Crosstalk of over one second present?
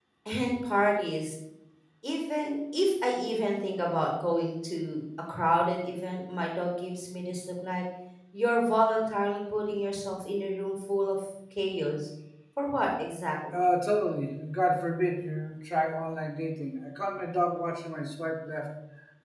No

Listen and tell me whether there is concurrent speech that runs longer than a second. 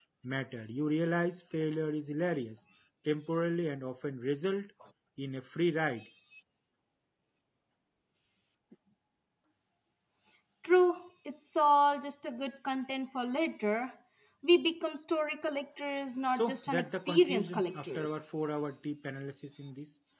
Yes, from 16.3 s

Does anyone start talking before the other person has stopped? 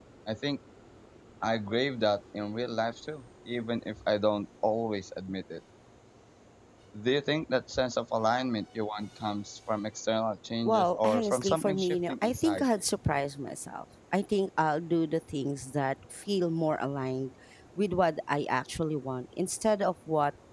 Yes, from 10.7 s

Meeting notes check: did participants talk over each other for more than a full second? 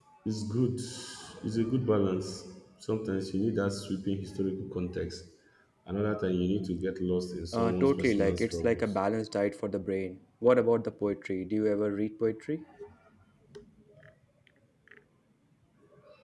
Yes, from 7.5 s

